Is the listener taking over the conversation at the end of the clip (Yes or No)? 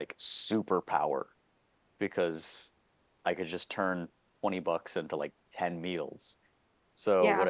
No